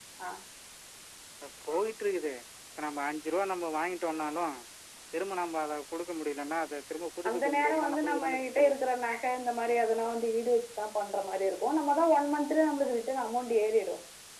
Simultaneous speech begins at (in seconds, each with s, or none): 7.2 s